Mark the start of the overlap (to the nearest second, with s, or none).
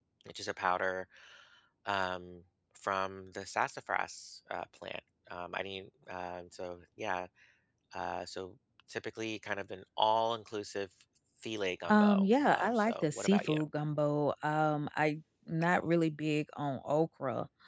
12 s